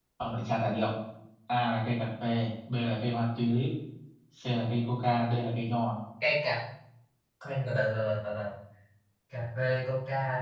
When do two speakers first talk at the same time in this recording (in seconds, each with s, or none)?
none